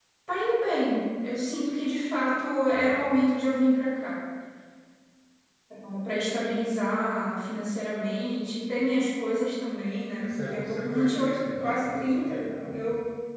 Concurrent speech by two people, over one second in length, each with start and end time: 10.2-12.3

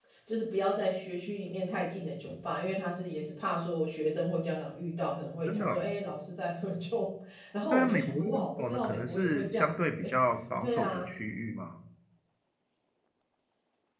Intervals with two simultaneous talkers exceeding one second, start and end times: 7.7-10.1

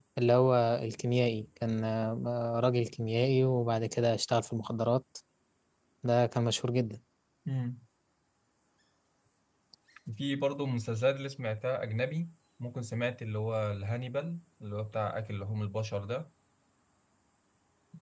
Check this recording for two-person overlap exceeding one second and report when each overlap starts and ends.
none

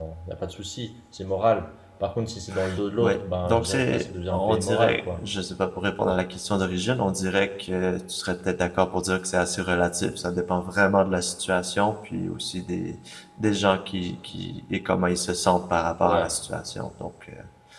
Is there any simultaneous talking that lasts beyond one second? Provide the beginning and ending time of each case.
3.0-5.3

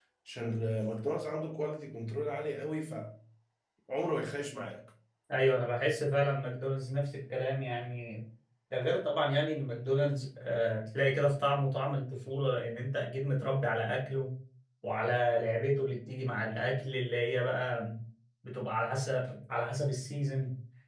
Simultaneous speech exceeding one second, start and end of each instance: none

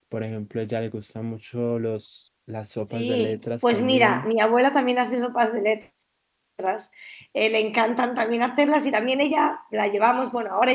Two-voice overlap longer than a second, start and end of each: 2.9-4.3

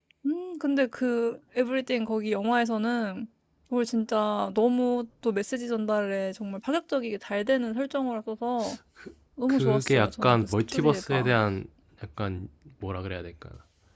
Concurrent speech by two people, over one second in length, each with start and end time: 9.5-11.4

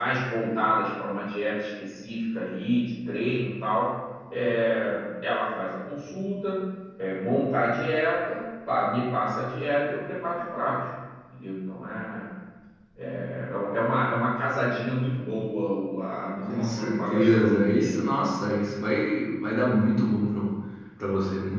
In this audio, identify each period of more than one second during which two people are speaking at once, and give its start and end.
16.4-18.0

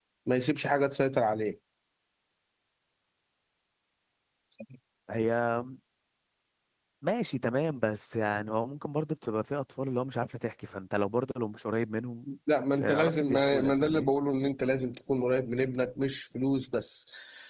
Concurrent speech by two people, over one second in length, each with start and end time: 12.8-14.1

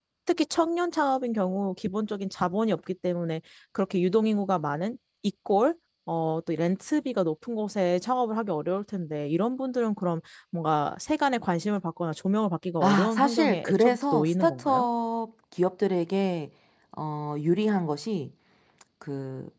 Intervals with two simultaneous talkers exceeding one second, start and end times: 12.8-14.9

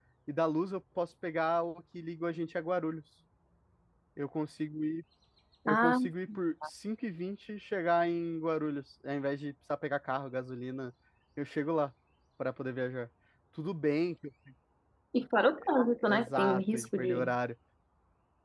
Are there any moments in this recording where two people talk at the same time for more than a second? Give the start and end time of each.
16.1-17.3

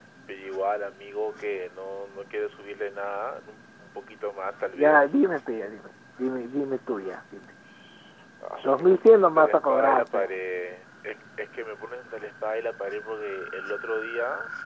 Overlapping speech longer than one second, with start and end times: 8.6-10.3

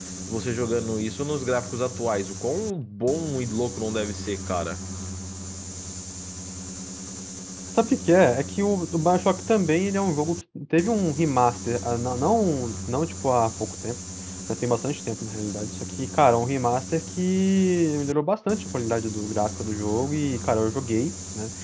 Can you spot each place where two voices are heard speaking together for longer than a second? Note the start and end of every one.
none

